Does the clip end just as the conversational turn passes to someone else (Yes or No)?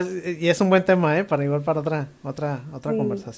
Yes